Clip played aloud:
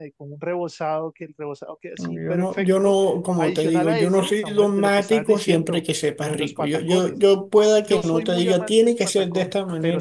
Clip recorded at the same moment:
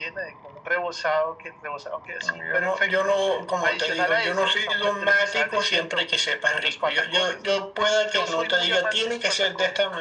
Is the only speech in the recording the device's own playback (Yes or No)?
Yes